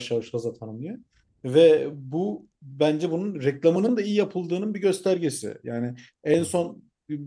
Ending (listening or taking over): listening